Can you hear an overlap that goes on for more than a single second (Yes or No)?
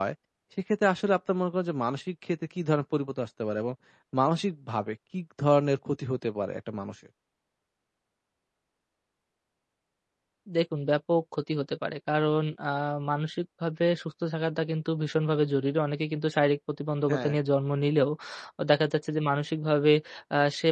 No